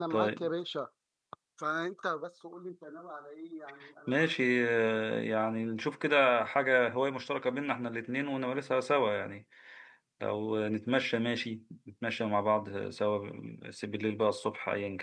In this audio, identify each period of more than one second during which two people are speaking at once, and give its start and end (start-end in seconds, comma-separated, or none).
none